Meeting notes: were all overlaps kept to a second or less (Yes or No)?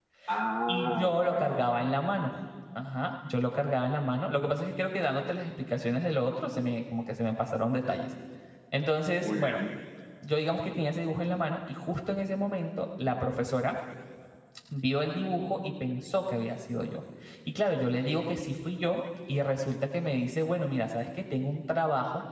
No